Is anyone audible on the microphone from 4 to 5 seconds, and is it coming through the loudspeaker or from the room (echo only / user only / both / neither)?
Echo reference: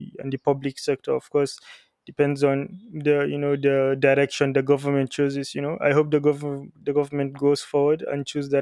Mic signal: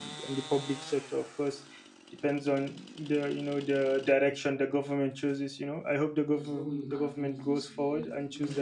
echo only